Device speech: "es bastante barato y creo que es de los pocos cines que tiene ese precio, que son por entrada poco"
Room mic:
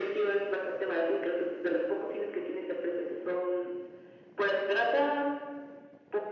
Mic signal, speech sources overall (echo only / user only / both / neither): echo only